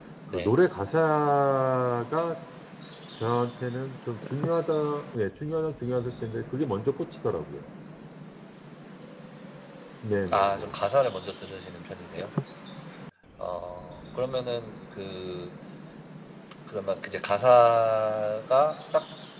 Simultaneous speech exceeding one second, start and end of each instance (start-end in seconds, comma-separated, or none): none